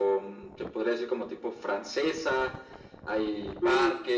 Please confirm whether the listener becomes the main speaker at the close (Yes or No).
No